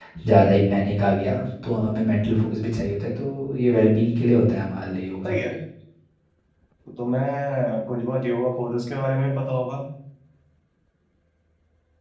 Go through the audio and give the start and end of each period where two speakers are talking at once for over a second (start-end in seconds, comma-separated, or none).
none